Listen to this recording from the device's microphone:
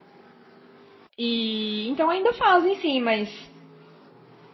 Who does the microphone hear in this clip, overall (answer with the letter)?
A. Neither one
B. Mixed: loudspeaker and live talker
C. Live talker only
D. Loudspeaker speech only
C